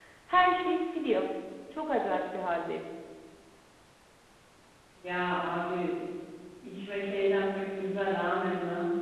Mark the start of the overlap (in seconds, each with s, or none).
none